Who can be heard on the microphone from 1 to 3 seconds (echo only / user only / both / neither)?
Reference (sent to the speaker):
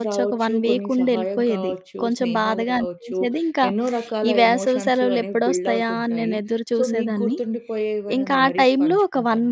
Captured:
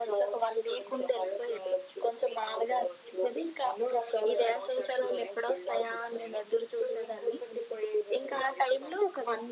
echo only